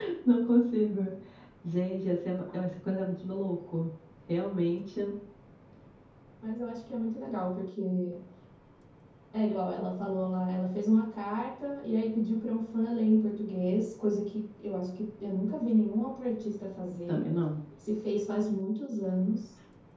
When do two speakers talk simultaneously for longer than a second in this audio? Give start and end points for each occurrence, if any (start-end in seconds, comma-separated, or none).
none